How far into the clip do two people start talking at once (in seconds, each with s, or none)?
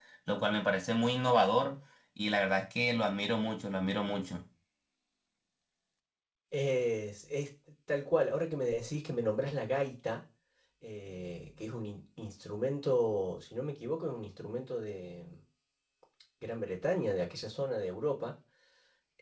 none